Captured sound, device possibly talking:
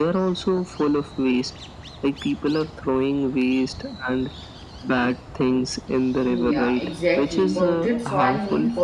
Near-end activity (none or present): present